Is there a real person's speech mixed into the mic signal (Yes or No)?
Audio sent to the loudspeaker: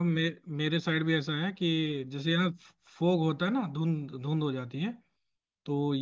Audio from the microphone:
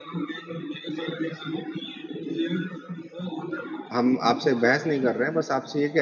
Yes